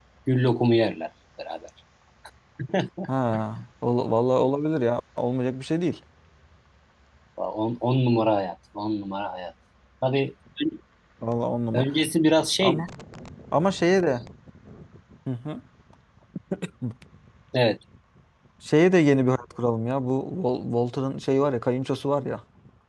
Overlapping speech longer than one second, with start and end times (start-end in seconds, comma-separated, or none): none